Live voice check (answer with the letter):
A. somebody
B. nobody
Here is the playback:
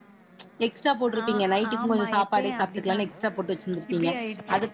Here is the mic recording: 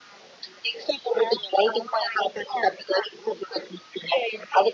B